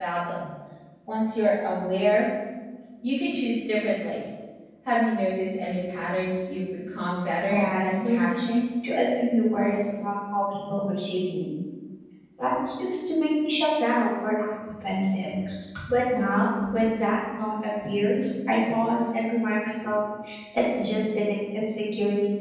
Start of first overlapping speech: 7.5 s

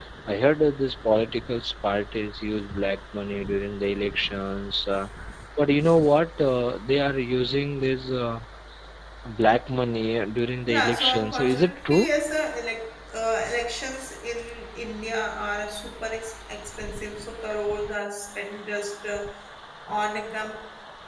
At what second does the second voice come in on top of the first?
10.7 s

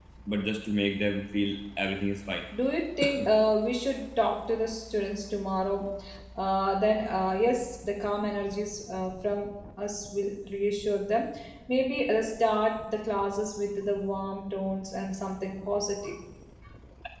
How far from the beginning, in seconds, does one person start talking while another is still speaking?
none

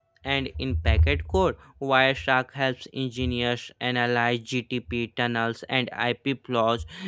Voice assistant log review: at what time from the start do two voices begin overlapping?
none

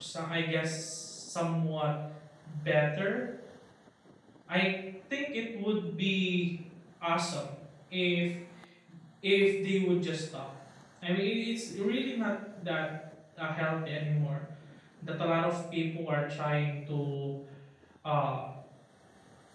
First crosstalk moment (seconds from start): none

